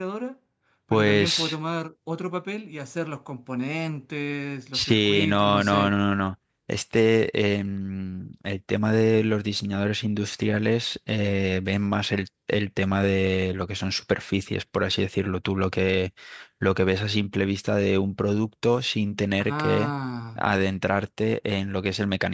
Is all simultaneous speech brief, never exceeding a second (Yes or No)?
No